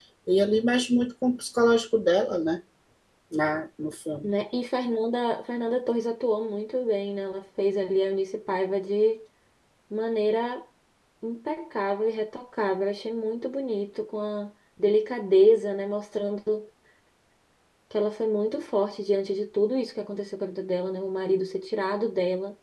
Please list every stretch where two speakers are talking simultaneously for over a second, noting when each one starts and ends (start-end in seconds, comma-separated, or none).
none